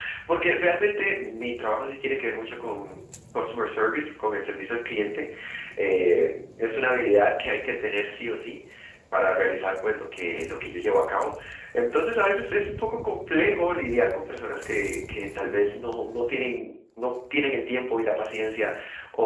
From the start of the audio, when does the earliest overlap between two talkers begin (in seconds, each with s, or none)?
none